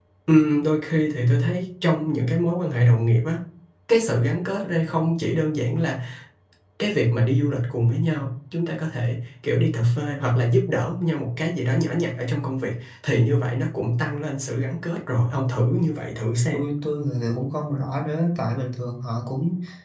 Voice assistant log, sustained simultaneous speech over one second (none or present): none